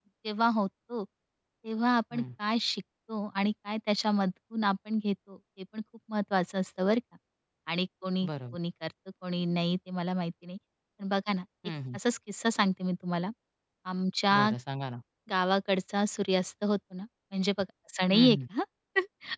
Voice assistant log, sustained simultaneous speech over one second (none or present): none